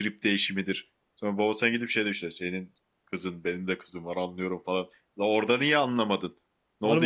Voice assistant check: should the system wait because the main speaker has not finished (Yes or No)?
No